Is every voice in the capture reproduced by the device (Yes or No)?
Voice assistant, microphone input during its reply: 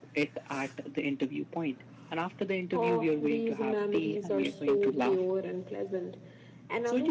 No